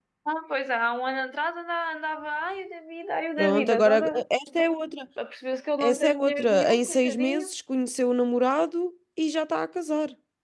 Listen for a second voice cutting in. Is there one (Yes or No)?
Yes